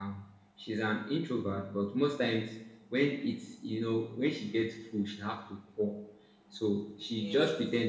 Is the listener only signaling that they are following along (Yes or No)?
Yes